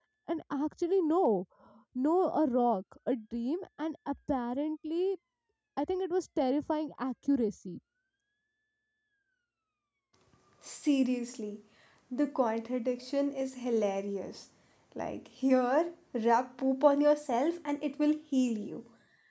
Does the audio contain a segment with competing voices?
No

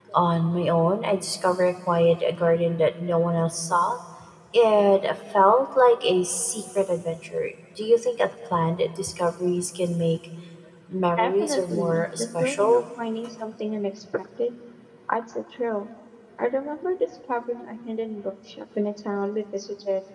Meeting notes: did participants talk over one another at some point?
Yes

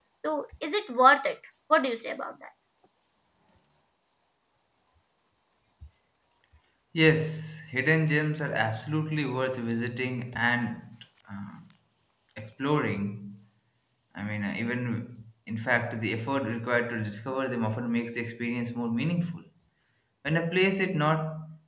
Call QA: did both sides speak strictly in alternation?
Yes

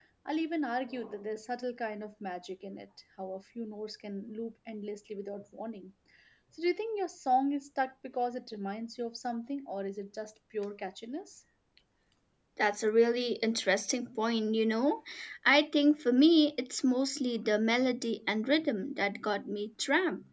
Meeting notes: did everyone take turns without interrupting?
Yes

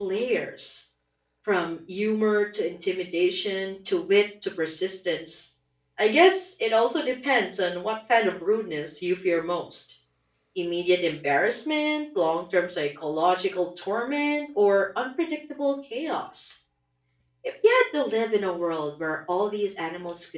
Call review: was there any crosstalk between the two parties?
No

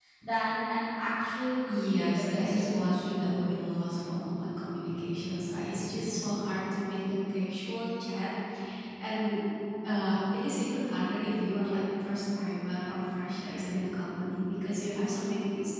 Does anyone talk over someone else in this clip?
Yes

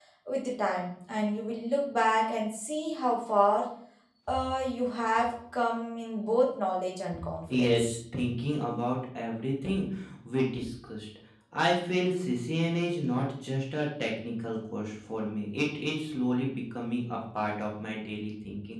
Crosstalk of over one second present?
No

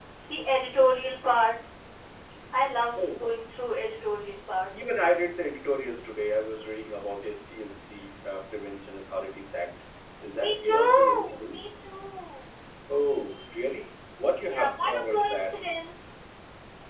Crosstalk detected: Yes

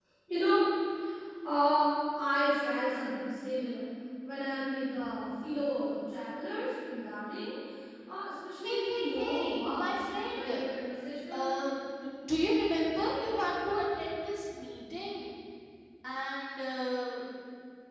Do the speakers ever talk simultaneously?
Yes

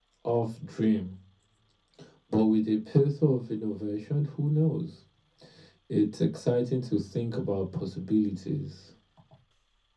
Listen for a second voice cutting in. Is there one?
No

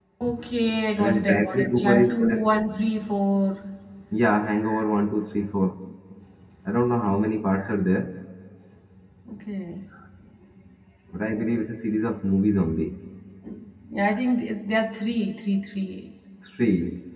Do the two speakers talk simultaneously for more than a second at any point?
Yes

